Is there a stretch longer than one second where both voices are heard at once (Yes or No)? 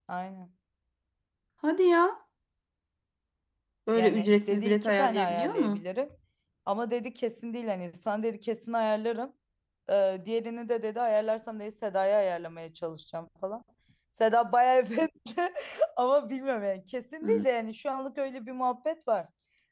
Yes